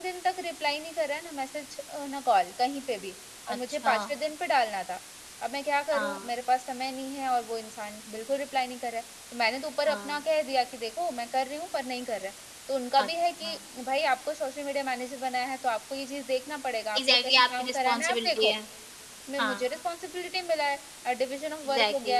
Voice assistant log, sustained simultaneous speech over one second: present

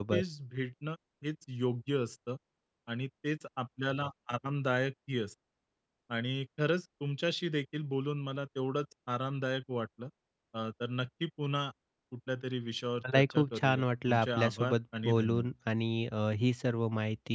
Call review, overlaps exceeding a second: present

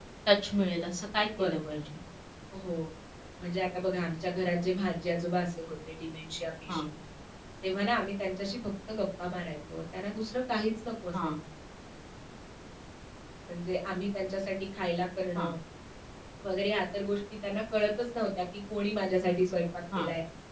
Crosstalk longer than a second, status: none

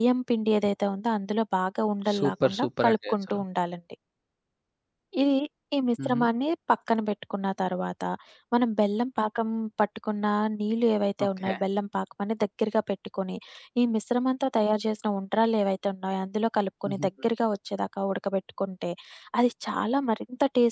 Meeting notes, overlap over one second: present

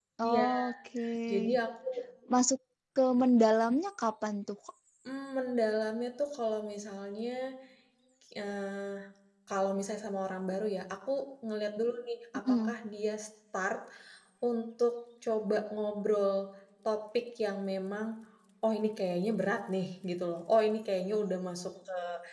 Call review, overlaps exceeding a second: none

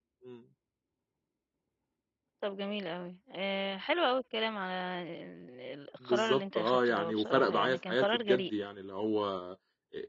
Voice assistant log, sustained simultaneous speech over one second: present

